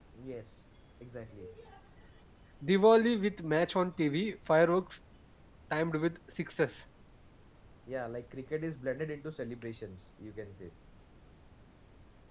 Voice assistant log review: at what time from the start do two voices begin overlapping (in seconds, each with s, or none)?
none